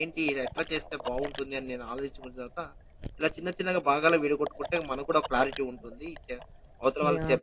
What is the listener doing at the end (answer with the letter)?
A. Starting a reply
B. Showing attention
B